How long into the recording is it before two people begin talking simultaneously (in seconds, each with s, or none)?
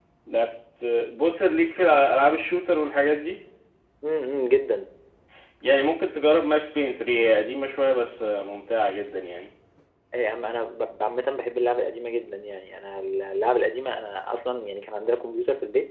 none